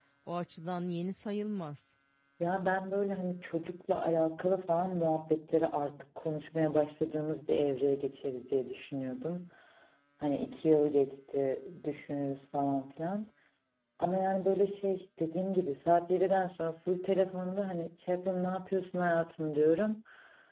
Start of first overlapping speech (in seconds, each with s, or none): none